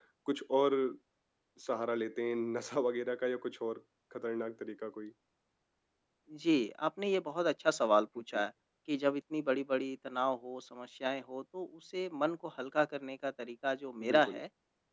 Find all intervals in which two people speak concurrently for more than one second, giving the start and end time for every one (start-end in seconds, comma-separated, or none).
none